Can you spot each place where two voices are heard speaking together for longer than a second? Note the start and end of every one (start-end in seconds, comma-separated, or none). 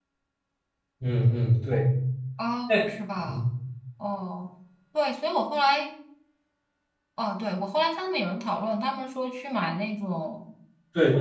none